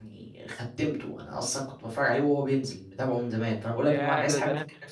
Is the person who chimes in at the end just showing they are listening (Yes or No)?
No